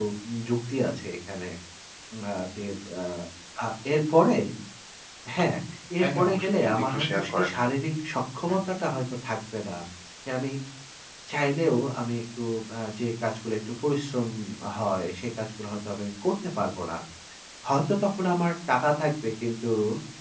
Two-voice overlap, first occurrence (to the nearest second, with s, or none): 6 s